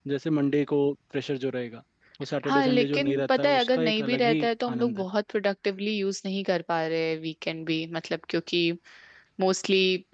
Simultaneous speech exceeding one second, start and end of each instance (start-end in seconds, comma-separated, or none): 2.5-5.0